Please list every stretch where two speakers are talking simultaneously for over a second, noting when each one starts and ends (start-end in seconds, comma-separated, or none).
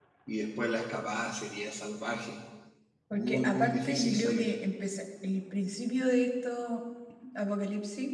3.1-4.5